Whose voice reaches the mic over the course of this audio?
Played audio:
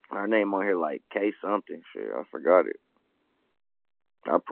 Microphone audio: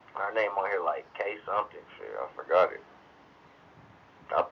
echo only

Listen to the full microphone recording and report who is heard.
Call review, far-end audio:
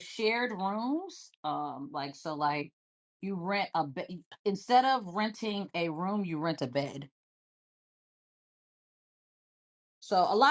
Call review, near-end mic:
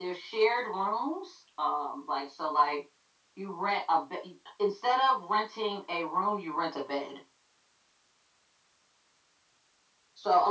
echo only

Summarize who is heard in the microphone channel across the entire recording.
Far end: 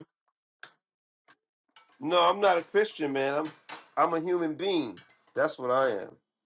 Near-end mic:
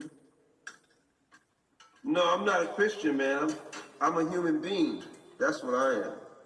echo only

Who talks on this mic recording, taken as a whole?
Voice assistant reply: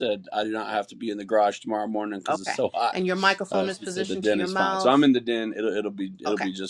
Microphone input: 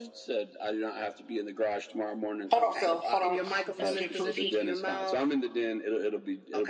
both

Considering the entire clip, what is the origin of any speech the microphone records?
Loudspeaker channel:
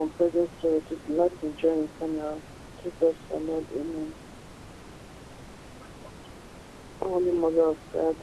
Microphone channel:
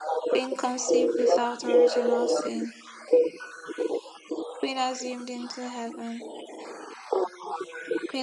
both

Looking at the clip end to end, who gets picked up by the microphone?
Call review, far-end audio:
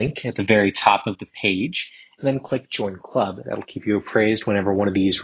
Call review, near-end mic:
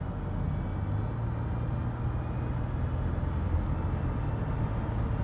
neither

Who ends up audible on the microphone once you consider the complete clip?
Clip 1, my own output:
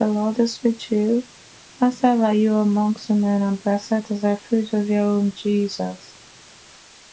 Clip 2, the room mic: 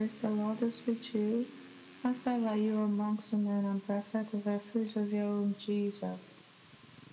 echo only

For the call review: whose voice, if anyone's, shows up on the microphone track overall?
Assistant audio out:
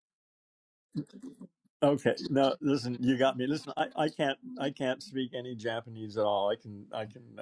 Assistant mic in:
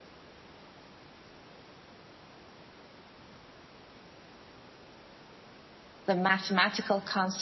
user only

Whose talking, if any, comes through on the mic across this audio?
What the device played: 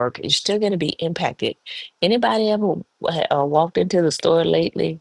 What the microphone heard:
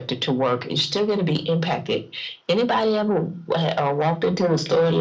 echo only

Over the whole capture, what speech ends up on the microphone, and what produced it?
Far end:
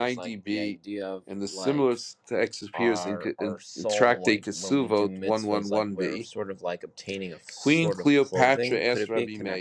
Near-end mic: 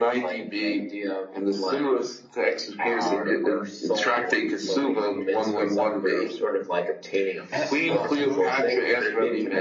both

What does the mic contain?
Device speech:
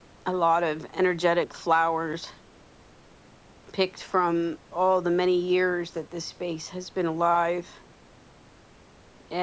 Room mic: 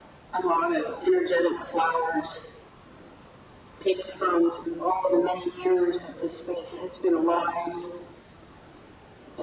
echo only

